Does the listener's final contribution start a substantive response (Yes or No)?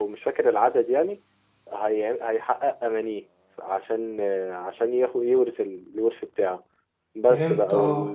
No